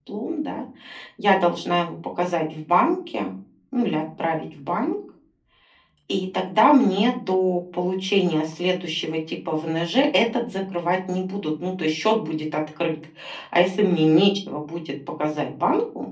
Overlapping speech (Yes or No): No